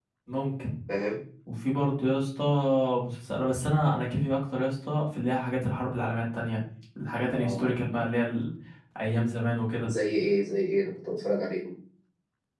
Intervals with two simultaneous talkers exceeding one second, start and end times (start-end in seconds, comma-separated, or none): none